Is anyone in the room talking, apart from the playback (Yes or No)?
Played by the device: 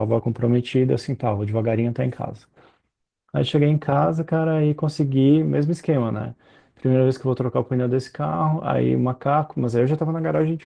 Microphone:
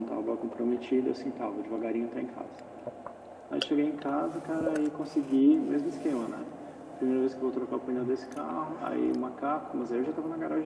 No